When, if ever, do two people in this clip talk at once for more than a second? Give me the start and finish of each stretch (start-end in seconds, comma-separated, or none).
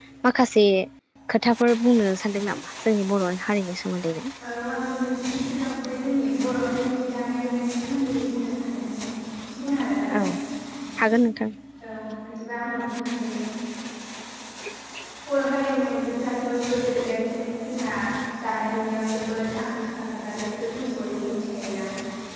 none